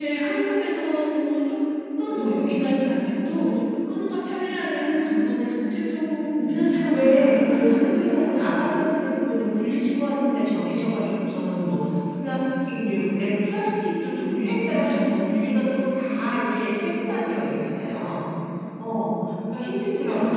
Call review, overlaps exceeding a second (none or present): present